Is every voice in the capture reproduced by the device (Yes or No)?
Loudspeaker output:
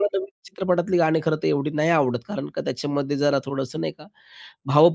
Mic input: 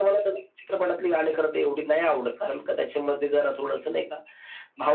Yes